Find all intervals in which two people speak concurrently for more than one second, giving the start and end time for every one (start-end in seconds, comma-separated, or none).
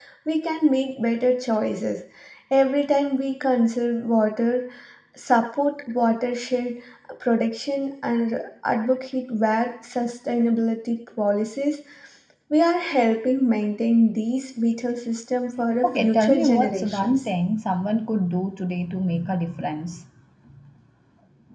15.8-17.2